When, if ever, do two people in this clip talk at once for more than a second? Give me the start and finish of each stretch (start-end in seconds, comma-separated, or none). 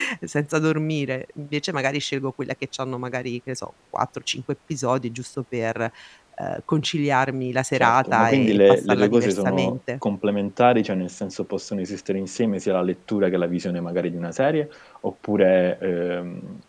7.8-9.8